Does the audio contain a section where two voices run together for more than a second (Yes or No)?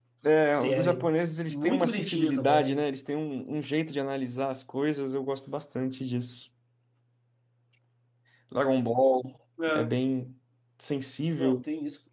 Yes